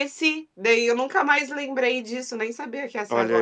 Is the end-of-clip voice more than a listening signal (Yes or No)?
Yes